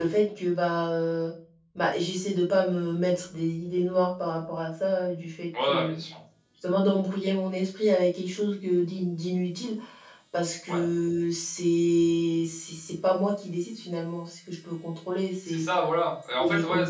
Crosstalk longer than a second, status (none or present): none